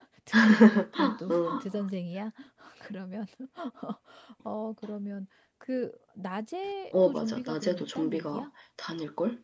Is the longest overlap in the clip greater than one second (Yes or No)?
Yes